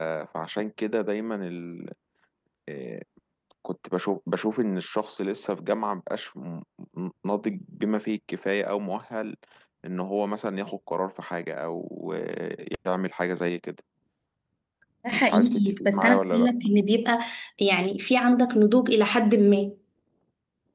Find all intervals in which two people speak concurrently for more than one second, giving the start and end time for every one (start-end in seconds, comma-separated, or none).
15.1-16.6